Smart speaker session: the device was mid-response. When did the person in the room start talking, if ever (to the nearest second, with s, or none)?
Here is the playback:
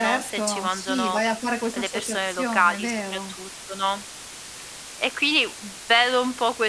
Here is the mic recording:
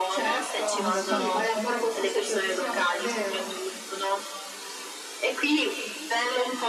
1 s